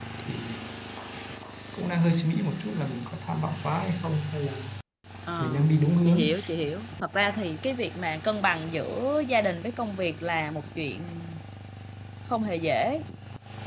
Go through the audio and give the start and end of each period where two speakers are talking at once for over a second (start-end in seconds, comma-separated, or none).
none